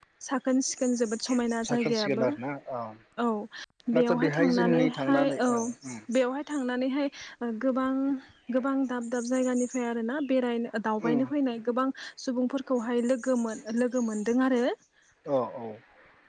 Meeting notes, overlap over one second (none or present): present